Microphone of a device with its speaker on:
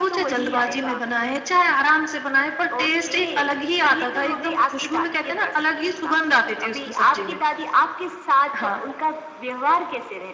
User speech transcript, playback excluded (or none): none